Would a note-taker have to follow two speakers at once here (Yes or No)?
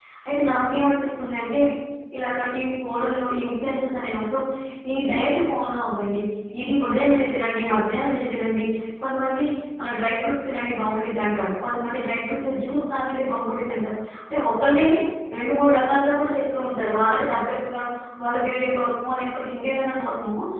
No